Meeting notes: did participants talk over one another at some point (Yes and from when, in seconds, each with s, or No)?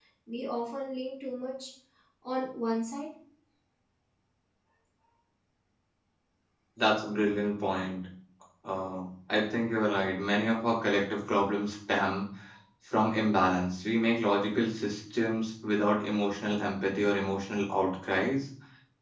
No